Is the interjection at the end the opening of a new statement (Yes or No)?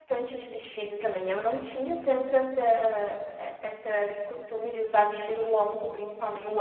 No